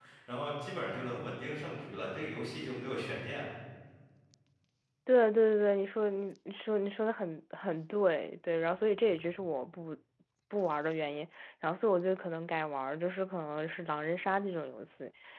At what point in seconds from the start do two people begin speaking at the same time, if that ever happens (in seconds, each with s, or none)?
none